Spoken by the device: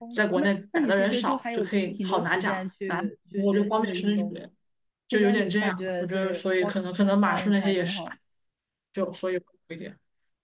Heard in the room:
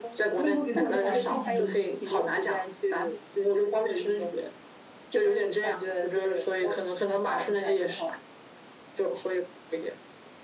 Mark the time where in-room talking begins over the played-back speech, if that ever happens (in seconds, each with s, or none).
0.4 s